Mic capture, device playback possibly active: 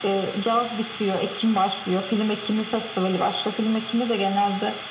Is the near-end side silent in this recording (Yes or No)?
Yes